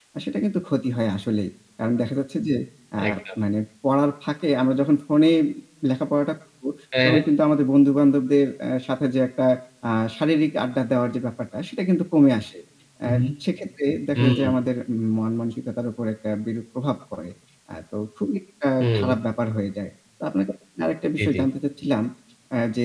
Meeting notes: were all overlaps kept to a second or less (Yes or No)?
Yes